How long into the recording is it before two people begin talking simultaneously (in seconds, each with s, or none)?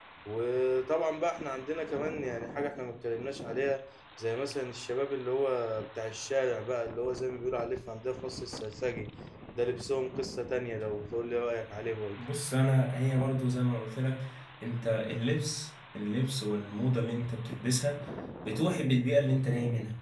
none